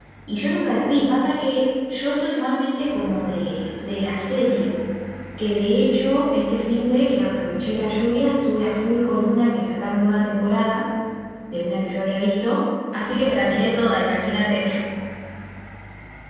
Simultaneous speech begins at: none

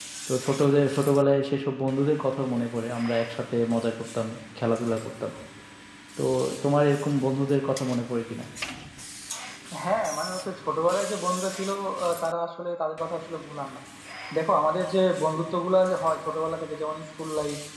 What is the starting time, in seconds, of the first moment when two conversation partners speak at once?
none

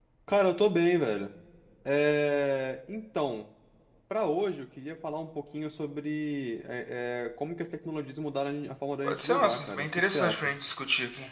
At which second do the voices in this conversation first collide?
9.0 s

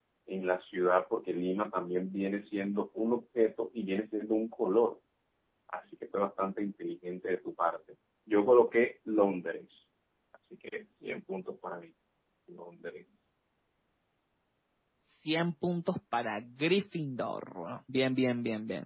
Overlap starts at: none

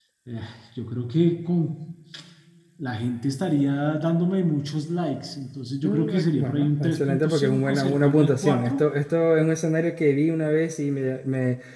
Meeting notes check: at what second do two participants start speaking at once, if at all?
5.8 s

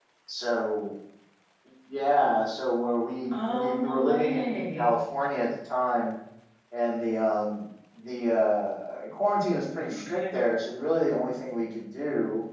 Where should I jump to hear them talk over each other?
3.3 s

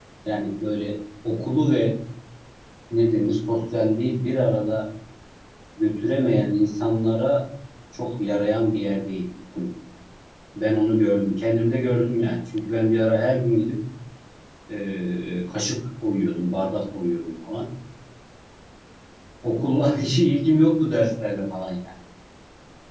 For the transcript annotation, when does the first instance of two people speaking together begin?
none

